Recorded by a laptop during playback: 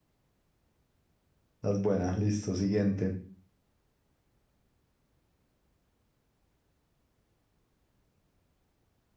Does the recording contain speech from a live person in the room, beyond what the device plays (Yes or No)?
Yes